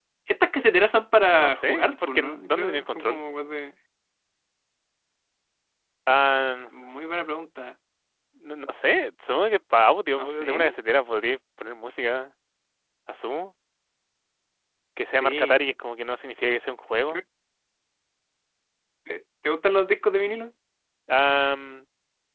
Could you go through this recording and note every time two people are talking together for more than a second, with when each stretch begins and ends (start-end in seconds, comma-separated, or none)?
1.2-3.2